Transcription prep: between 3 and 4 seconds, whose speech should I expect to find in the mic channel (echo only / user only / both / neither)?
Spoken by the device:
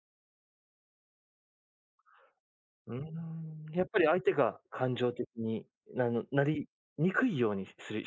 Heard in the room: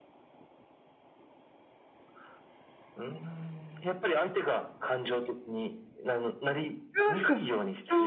echo only